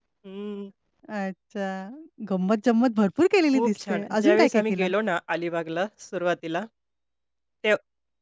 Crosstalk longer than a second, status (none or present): present